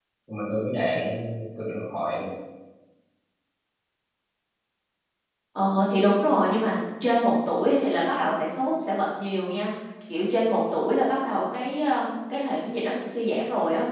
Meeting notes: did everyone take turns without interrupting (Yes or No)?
Yes